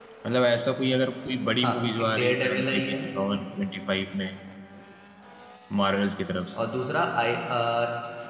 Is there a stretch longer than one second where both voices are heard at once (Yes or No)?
Yes